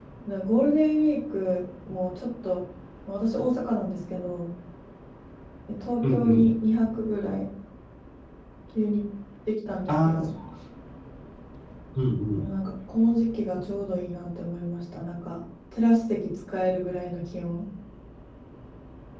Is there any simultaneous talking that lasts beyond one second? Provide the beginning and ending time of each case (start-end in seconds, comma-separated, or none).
none